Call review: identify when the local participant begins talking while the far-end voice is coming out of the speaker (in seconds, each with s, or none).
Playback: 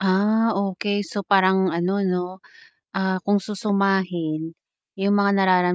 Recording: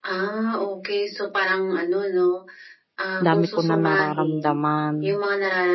3.2 s